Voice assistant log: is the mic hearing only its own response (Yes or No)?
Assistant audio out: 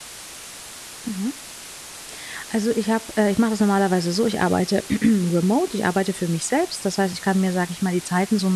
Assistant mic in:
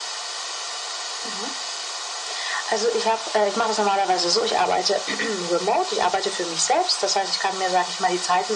Yes